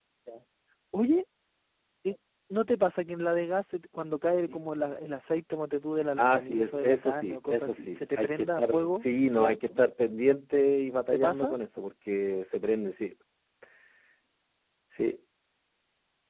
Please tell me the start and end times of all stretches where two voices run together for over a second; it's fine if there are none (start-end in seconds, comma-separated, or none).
6.2-9.7